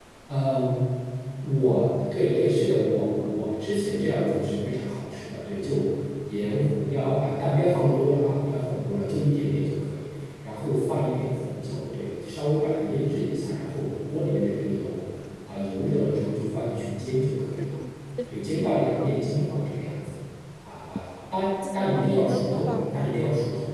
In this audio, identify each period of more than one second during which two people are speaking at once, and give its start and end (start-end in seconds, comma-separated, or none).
21.7-23.2